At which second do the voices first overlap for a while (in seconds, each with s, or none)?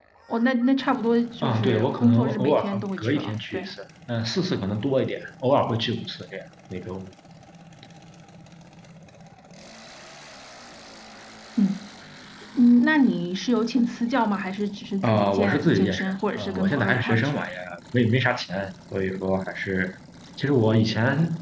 1.4 s